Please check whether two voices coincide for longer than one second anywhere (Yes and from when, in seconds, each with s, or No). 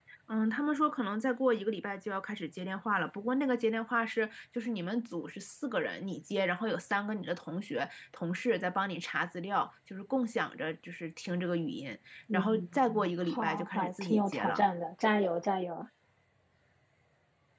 Yes, from 12.3 s